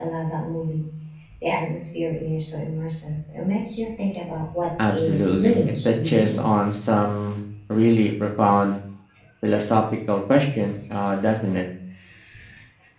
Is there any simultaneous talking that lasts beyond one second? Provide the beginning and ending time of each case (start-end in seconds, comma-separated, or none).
4.8-6.5